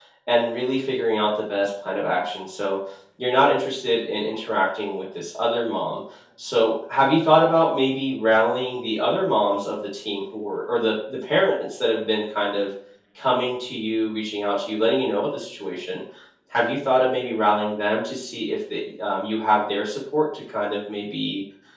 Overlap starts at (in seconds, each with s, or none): none